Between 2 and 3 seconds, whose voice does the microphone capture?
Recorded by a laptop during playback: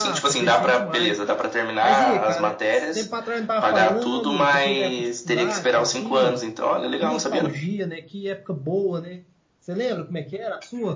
both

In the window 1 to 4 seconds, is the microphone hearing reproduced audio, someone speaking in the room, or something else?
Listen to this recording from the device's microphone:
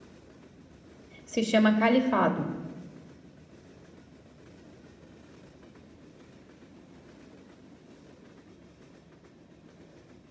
user only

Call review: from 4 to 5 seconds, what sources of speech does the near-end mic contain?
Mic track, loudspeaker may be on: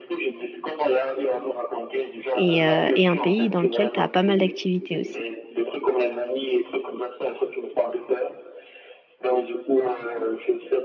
both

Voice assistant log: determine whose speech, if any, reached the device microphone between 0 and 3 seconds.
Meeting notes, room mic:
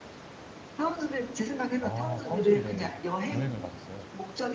both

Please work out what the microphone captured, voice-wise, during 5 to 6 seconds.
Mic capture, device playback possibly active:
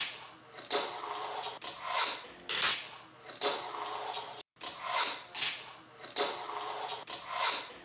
neither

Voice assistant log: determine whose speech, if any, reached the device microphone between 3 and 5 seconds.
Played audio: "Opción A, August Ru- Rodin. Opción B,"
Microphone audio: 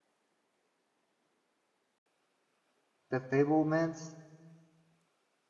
user only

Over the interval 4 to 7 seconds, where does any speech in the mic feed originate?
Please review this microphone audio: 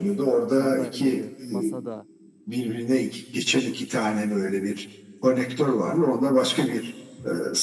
echo only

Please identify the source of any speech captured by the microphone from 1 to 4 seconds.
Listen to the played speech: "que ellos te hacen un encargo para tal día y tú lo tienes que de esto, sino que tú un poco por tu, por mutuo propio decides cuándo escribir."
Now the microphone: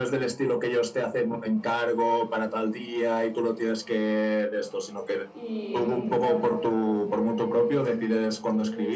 echo only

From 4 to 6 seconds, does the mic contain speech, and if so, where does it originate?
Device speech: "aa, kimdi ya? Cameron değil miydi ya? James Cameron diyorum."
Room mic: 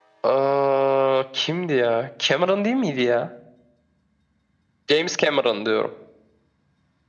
echo only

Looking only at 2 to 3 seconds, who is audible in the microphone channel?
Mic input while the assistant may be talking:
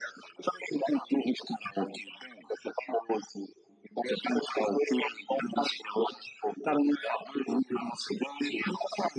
echo only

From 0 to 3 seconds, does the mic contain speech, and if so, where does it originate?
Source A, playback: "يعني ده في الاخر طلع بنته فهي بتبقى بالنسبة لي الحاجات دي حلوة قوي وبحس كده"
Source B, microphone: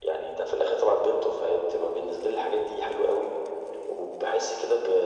echo only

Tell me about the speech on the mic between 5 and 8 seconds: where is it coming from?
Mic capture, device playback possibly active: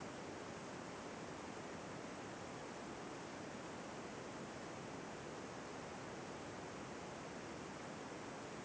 neither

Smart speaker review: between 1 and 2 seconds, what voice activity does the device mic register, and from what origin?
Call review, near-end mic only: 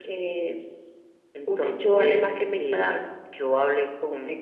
echo only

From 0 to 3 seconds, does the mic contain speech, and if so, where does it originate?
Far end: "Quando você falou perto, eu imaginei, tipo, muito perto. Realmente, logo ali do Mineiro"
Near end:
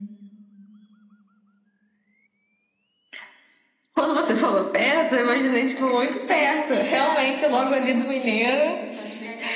neither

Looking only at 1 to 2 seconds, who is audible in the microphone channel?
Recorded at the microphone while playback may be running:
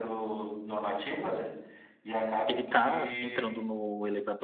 echo only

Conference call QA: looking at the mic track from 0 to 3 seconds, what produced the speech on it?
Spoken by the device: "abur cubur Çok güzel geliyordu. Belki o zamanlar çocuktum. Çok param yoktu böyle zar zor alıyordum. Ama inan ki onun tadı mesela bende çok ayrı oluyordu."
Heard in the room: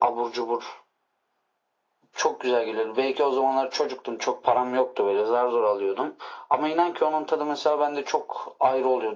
echo only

